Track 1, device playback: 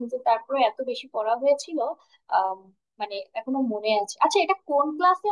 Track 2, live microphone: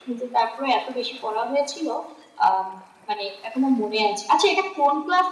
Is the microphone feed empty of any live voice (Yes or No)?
Yes